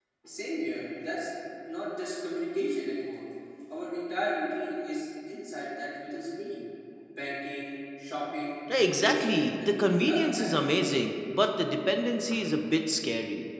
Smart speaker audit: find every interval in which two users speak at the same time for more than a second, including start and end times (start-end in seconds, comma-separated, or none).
8.7-10.7